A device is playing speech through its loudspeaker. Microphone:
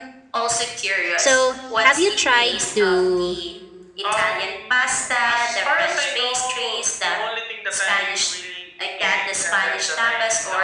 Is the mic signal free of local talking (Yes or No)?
No